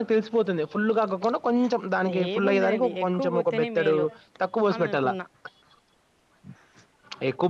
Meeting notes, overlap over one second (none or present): present